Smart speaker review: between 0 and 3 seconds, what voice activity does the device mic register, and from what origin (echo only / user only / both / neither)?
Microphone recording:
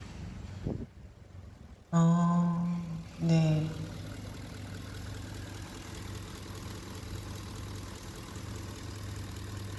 user only